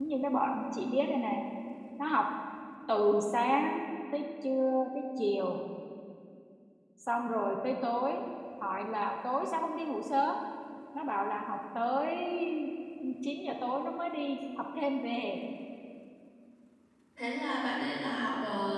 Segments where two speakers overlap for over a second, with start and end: none

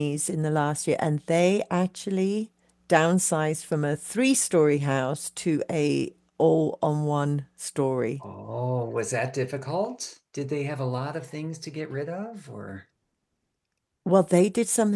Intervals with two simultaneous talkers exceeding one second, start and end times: none

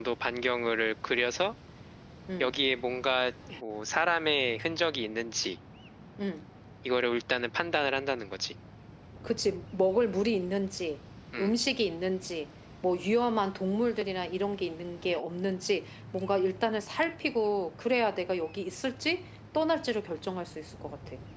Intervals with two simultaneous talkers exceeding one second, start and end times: none

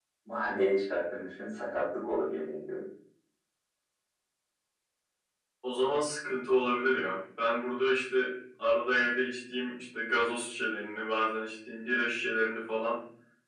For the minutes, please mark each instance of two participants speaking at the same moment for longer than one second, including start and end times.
none

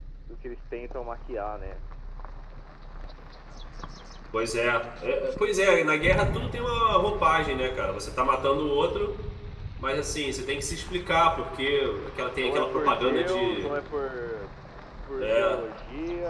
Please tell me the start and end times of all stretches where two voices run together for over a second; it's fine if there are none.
12.4-13.8

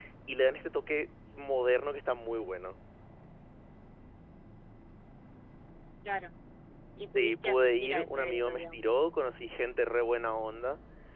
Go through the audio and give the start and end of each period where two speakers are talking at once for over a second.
7.2-8.9

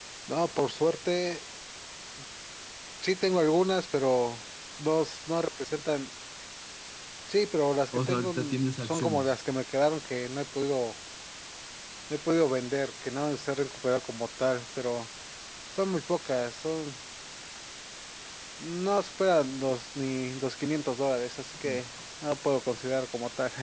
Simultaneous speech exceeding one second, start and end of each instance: 7.9-9.3

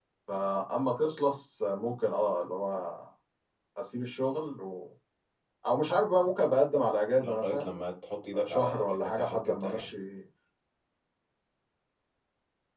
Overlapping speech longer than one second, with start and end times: 8.3-9.9

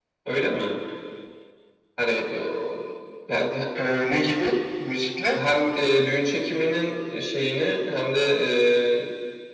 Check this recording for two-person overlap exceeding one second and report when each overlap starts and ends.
none

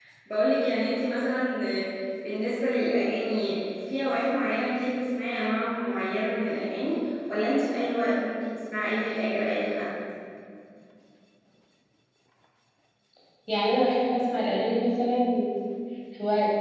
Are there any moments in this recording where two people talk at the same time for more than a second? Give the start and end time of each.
none

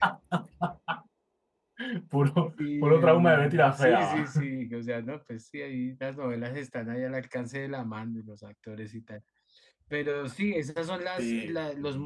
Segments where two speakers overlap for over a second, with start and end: 2.8-4.4

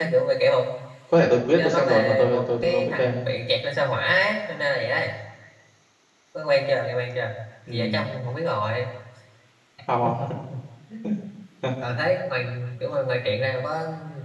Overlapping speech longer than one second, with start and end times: 1.6-3.2

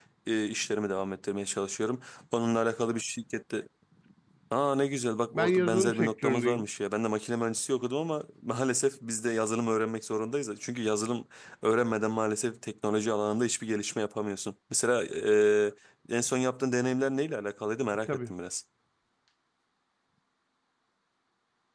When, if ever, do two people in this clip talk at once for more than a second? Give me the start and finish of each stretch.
5.3-6.7

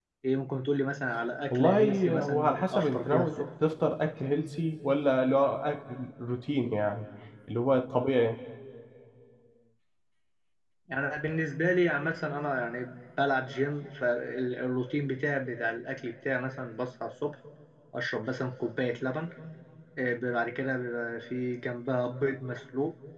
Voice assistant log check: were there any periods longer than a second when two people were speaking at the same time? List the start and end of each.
1.5-3.5

